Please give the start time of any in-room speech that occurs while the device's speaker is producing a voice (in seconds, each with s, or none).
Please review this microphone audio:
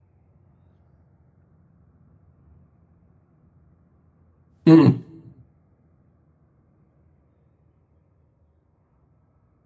4.6 s